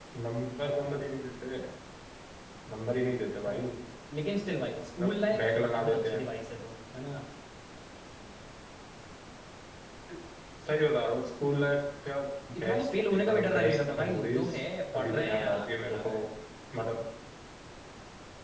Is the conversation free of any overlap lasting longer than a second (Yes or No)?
No